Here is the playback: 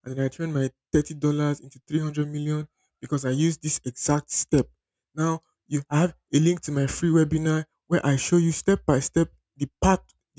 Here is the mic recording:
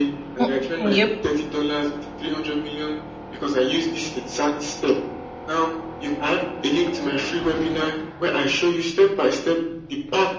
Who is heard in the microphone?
both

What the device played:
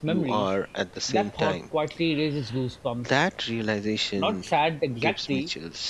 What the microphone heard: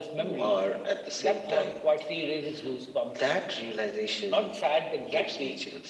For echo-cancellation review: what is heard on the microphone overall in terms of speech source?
echo only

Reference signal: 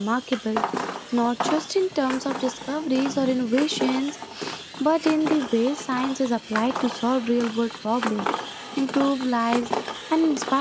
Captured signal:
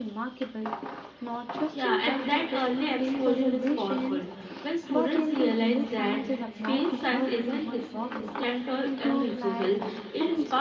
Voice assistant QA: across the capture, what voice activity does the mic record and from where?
both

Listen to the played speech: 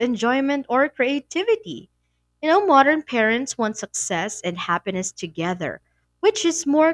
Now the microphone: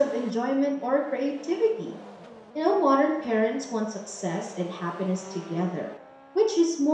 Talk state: echo only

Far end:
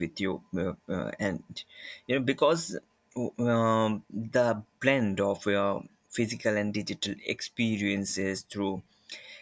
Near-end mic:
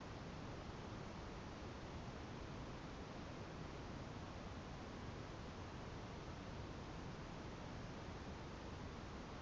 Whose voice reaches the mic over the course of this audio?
neither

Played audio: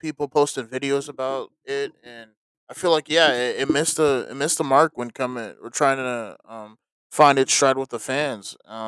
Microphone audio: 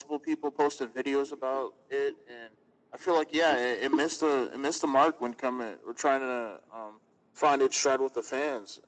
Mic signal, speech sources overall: echo only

